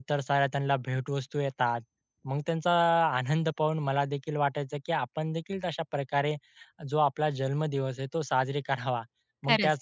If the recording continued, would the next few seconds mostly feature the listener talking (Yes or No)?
No